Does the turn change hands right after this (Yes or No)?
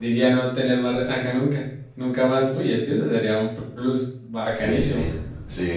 Yes